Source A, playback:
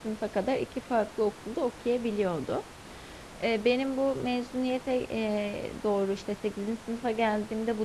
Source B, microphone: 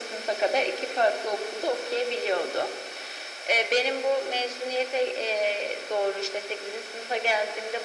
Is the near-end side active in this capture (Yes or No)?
No